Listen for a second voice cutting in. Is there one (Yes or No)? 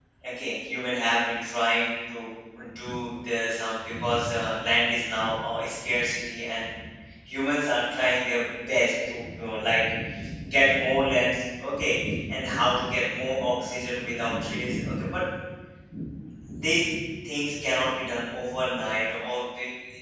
No